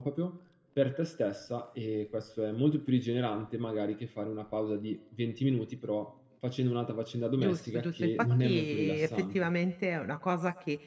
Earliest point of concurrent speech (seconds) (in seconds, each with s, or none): 7.4 s